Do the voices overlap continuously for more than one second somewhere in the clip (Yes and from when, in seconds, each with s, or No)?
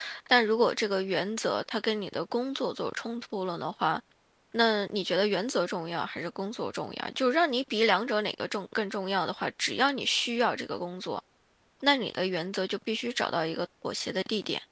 No